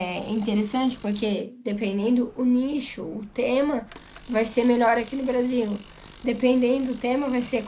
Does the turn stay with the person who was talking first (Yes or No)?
Yes